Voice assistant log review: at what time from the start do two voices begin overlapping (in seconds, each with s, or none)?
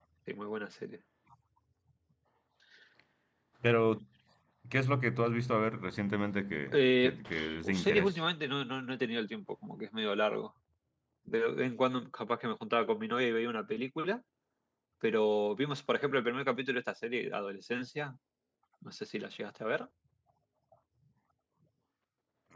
6.7 s